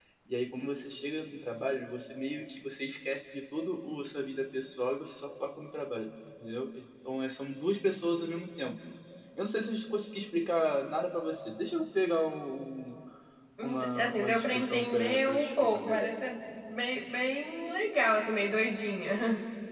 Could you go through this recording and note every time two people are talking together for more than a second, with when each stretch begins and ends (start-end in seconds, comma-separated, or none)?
13.6-16.1